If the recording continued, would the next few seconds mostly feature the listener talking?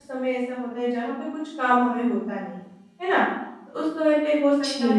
No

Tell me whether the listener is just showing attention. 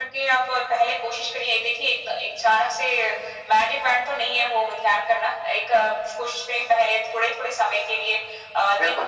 Yes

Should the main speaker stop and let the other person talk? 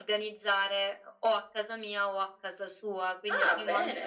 No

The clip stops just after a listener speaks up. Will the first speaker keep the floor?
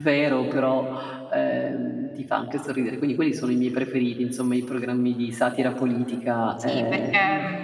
No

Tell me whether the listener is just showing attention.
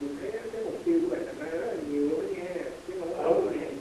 No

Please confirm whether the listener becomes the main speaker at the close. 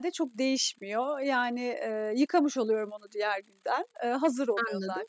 No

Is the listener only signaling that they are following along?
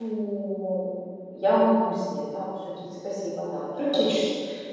No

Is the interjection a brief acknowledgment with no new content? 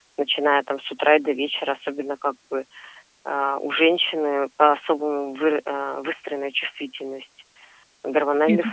Yes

